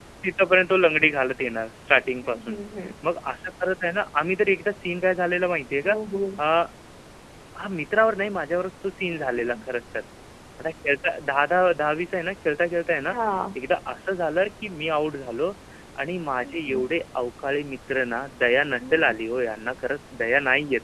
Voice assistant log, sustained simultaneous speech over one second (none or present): none